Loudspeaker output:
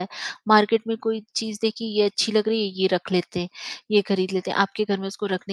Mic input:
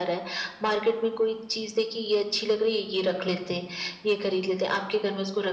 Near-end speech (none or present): none